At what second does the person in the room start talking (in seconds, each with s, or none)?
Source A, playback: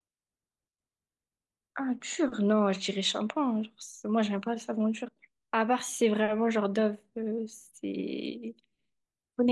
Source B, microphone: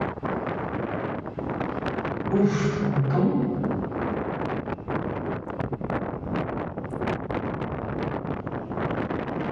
2.3 s